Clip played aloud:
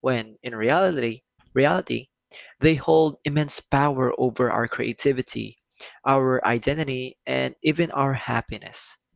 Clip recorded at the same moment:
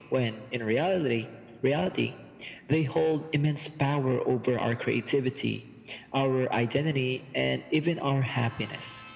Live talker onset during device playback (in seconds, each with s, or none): none